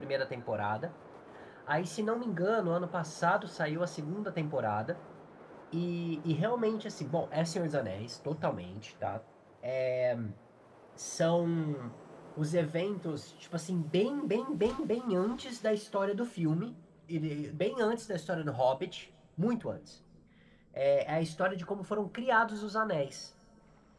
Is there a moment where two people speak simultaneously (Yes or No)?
No